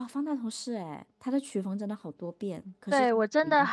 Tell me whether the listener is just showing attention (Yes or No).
No